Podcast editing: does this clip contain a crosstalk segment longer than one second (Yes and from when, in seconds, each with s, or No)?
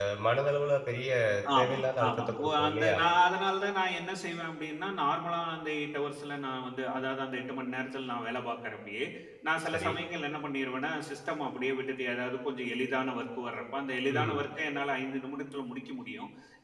Yes, from 1.6 s